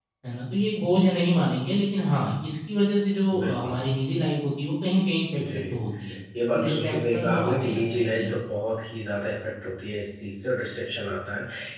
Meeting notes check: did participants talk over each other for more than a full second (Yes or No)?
Yes